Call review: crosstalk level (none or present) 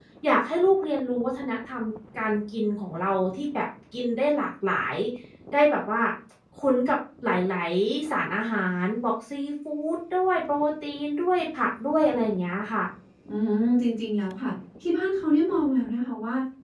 none